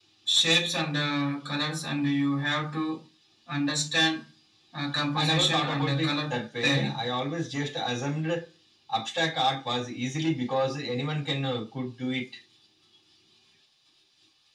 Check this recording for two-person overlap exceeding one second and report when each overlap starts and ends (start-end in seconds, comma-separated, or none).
5.2-7.0